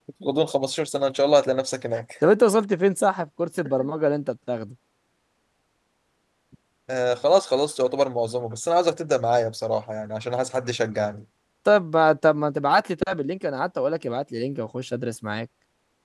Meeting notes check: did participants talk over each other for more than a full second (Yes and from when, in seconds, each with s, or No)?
No